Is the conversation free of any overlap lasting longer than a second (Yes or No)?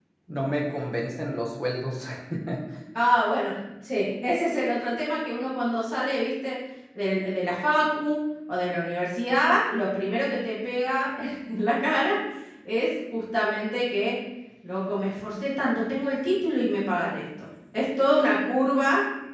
Yes